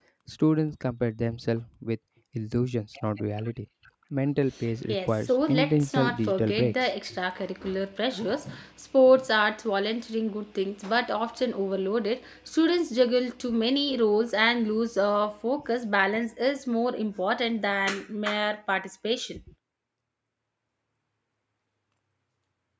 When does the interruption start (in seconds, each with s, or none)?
4.9 s